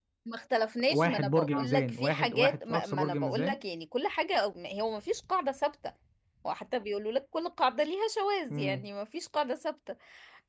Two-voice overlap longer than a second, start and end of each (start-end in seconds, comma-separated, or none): 0.9-3.6